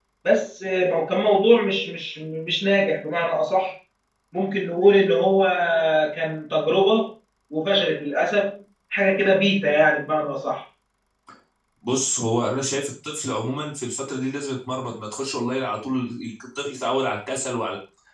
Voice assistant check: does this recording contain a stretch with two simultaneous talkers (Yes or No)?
No